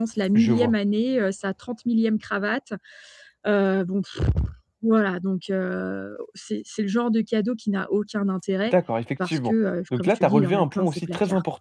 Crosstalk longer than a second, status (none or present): present